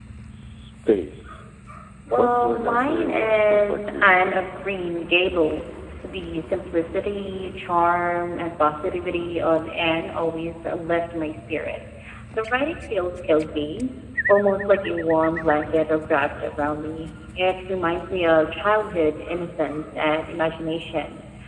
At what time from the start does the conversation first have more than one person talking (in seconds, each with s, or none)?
2.2 s